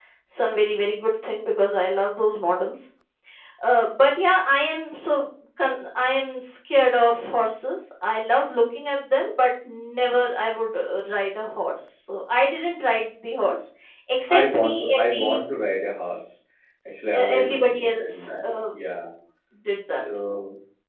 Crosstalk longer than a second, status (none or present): present